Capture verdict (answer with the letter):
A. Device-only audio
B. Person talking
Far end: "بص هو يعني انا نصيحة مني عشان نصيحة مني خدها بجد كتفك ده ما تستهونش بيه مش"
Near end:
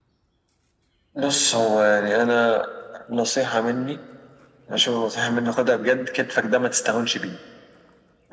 A